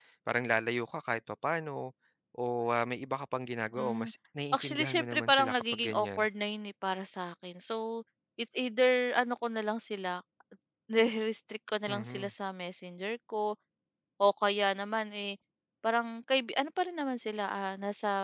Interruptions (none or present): present